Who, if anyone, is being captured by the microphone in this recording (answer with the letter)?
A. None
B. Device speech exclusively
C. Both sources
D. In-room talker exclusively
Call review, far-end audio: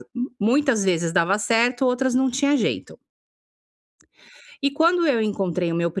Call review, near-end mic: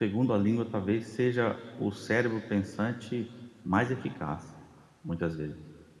D